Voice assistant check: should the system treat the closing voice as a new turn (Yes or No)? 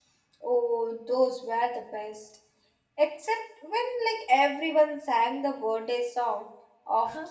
Yes